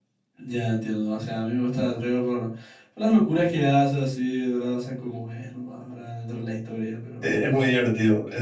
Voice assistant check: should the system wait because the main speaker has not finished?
No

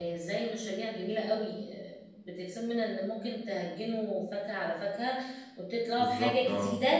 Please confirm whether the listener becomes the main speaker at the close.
No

